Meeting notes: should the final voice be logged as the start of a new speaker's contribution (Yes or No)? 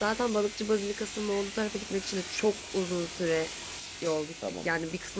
Yes